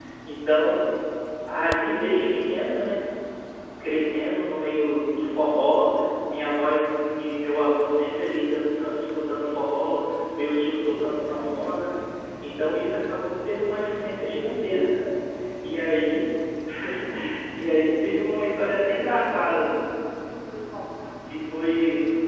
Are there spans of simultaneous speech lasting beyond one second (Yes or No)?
No